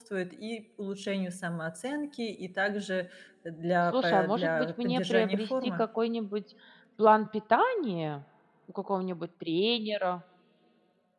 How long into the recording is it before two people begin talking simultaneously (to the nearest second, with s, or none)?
4 s